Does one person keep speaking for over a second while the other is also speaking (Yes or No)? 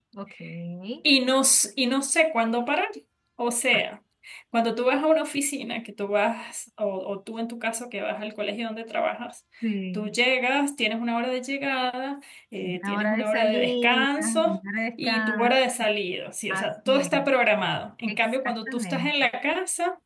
Yes